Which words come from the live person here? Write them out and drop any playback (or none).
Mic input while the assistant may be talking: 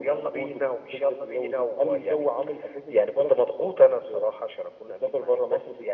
none